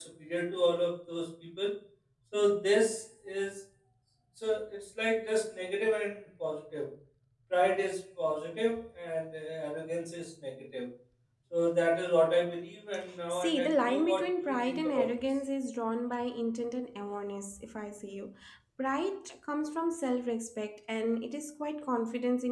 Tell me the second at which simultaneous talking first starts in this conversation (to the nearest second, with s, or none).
13 s